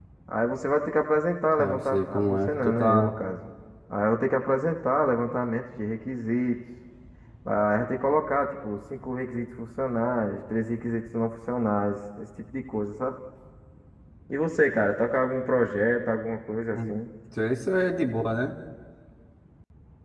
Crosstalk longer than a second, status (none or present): present